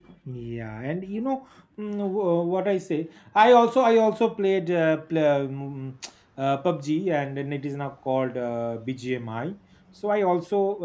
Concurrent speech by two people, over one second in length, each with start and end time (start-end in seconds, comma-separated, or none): none